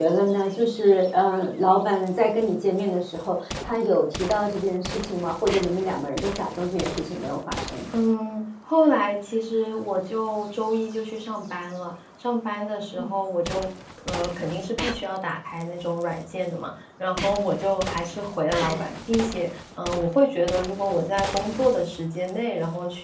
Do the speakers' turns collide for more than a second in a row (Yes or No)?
No